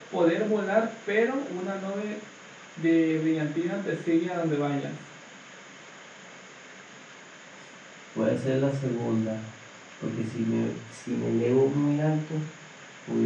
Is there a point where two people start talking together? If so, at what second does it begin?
none

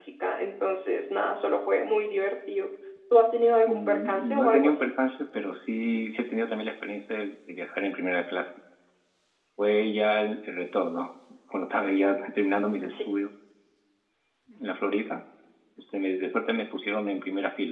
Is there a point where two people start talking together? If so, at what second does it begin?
4 s

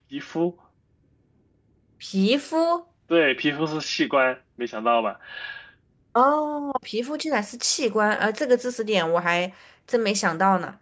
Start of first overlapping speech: none

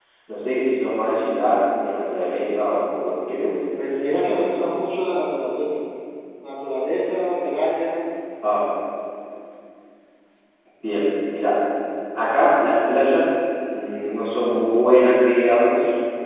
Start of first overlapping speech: none

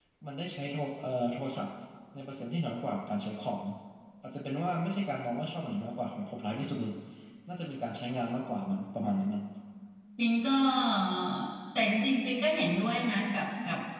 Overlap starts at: none

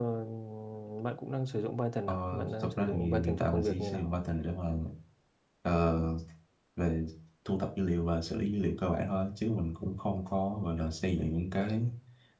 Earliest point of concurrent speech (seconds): 2 s

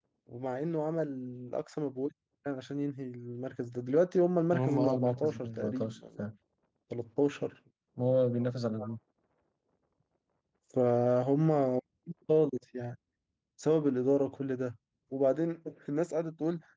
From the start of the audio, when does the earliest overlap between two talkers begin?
5 s

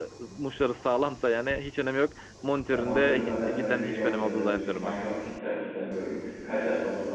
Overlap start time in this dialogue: 3 s

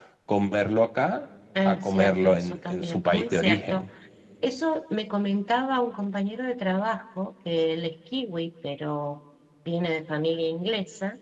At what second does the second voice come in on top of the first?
2 s

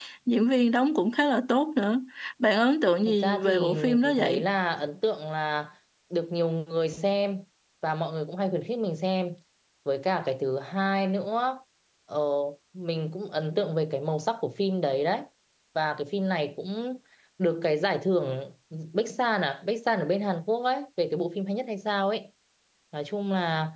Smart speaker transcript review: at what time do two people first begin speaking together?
3 s

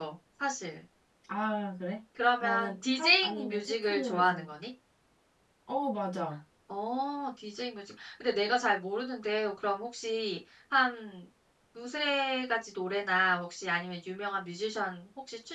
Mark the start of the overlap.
2 s

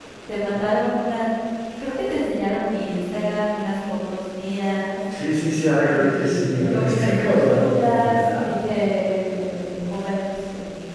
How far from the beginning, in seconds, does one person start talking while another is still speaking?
6 s

